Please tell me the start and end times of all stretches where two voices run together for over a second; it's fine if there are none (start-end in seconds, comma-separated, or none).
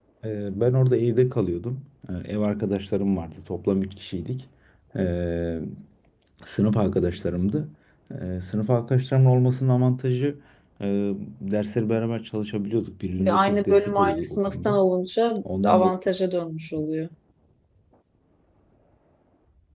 13.2-14.8